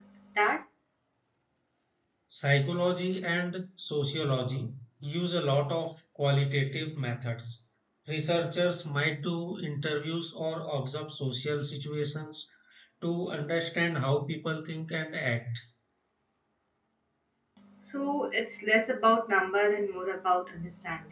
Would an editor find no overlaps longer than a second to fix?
Yes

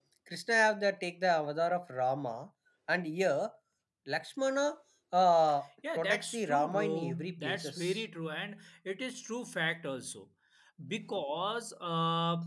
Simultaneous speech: Yes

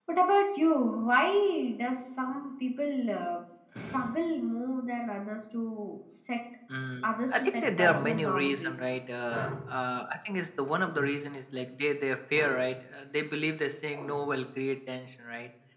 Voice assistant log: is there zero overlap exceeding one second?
No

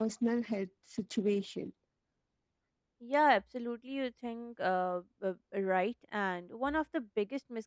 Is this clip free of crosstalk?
Yes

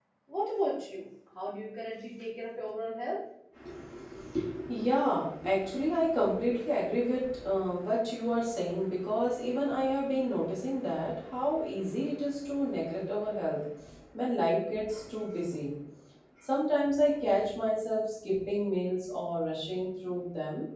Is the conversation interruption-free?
Yes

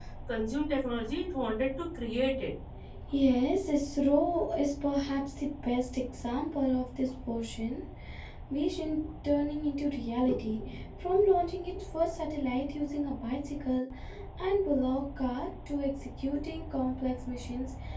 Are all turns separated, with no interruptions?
Yes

